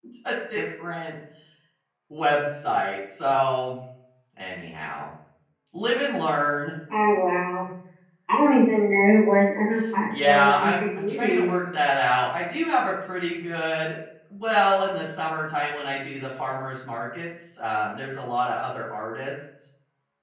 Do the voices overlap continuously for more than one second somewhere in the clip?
Yes, from 10.1 s

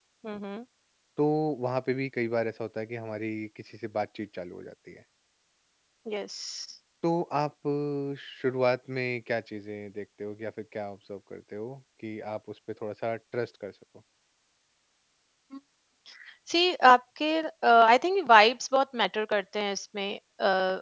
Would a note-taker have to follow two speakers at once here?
No

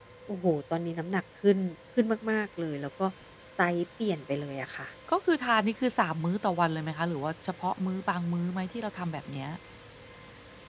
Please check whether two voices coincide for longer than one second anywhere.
No

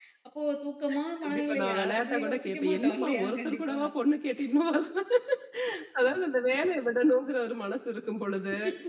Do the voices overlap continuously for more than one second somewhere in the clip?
Yes, from 1.2 s

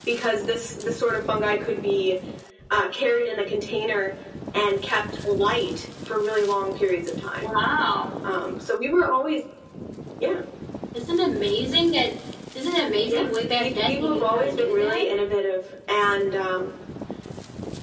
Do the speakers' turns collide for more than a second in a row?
Yes, from 13.1 s

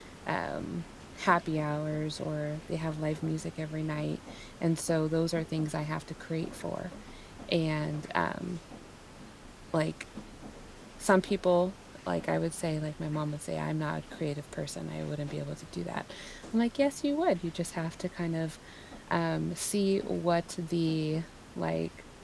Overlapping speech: No

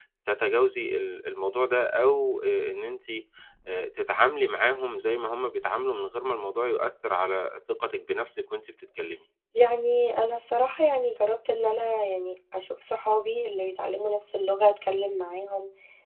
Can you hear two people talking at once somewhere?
No

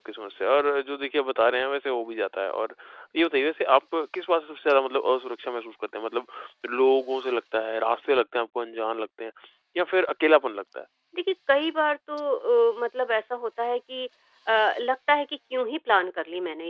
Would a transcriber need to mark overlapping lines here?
No

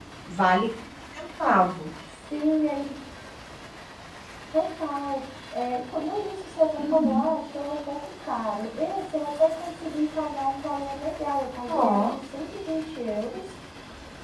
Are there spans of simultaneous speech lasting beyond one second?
No

